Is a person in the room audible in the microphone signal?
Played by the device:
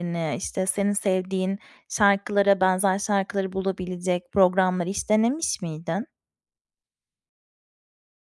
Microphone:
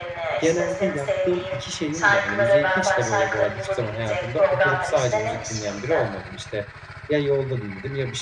Yes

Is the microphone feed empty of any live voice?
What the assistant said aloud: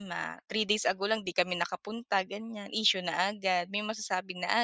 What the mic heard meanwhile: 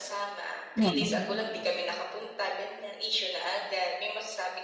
No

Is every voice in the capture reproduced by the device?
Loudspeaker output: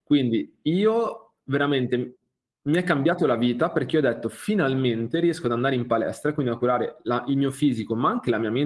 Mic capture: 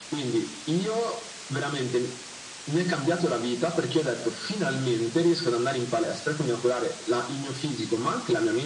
Yes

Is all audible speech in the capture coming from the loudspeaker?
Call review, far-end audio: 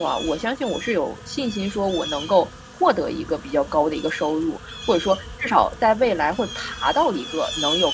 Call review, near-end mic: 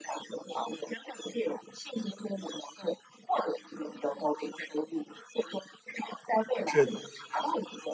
No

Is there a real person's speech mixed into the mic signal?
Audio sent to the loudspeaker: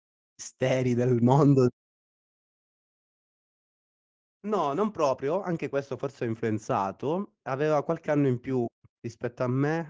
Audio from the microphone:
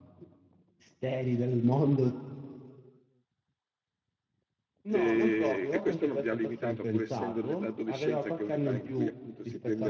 Yes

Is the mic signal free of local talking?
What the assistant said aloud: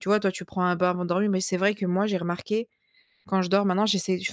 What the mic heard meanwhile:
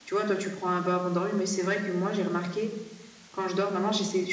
Yes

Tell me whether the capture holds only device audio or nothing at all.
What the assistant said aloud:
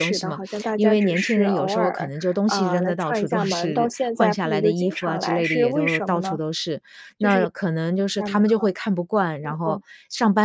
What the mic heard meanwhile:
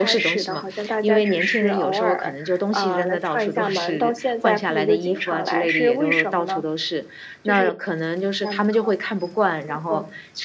Yes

